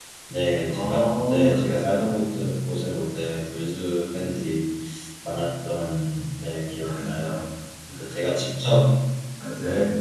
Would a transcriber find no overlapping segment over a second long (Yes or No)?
No